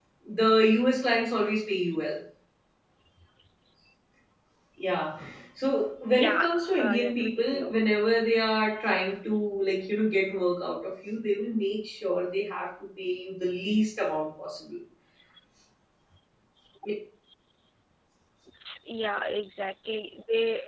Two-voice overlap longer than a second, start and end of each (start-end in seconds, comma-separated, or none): 6.1-7.7